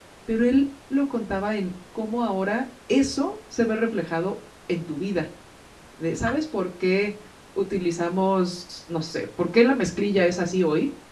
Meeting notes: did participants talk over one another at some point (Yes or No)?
No